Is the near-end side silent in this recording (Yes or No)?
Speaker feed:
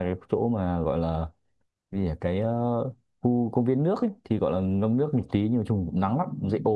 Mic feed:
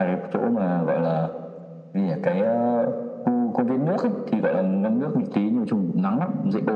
Yes